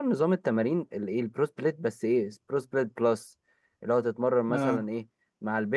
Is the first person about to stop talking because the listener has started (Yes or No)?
No